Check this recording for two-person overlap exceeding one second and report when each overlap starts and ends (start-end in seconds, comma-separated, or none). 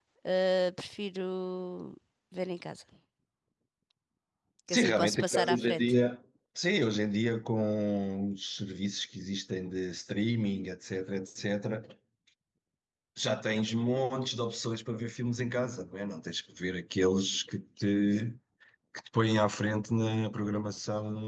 4.7-5.9